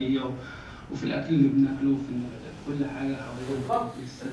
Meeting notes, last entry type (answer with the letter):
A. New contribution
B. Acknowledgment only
A